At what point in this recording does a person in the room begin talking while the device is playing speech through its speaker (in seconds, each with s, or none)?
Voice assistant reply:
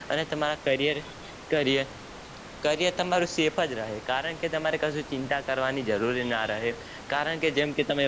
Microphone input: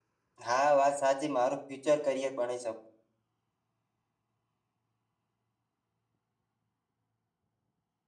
0.5 s